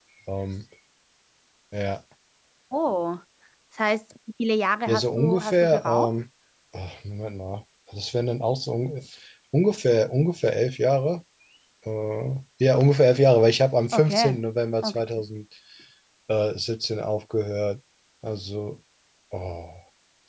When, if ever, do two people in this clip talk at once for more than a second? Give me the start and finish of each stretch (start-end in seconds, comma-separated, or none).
4.9-6.1